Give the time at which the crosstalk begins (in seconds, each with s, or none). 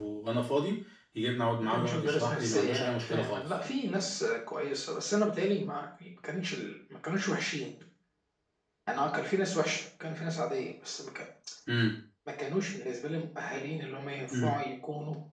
1.7 s